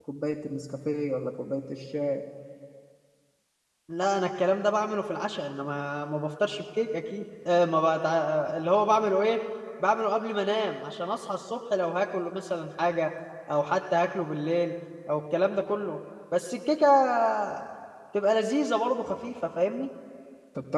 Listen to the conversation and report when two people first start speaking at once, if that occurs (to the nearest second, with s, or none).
none